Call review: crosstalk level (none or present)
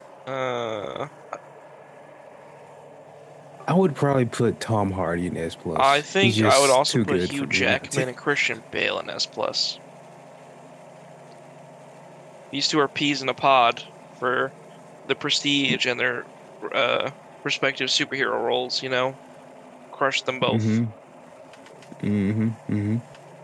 present